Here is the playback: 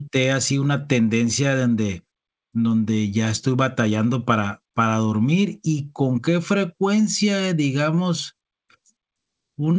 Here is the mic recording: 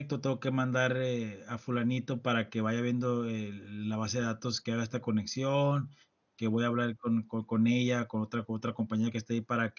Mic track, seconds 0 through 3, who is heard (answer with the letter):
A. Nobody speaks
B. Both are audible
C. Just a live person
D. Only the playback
C